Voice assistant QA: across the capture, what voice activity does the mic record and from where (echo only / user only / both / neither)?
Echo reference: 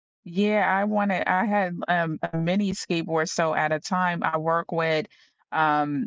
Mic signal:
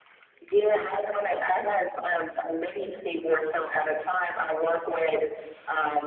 echo only